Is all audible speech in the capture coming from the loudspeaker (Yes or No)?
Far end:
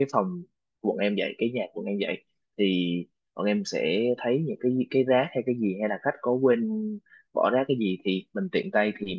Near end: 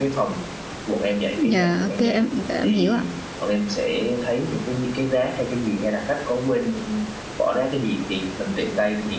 No